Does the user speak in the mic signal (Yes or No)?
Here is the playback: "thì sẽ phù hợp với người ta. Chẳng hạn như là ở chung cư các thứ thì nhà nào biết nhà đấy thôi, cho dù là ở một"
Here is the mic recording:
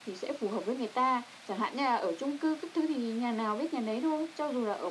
No